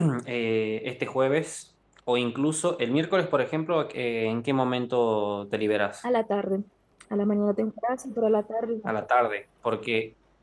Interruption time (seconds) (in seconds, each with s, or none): none